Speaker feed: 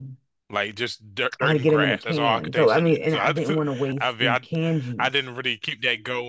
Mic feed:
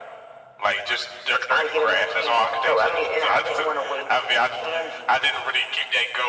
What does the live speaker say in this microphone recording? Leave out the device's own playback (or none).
none